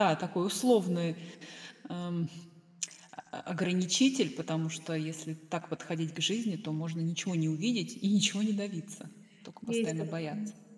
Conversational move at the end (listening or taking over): taking over